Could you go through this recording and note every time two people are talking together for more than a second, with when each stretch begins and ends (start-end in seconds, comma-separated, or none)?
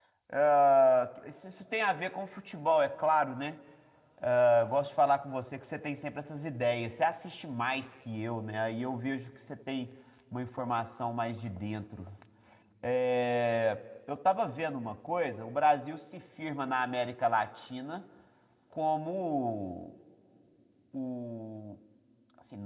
none